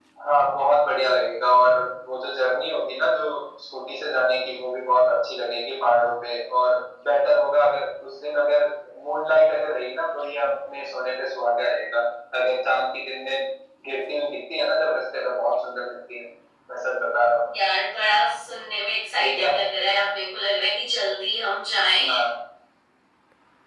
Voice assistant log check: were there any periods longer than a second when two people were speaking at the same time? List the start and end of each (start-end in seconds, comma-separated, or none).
none